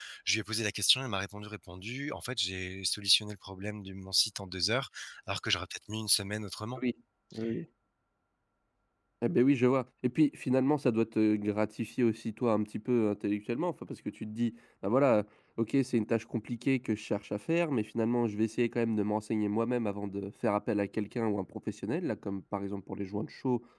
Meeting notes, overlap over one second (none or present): none